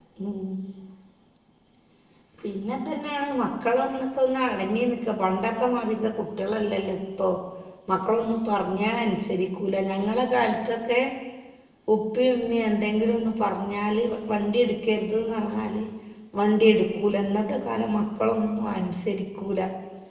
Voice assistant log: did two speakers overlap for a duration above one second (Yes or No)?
No